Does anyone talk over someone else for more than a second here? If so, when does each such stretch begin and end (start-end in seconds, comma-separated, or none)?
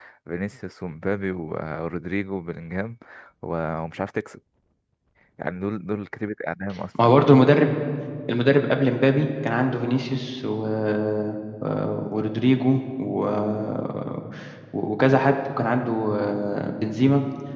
none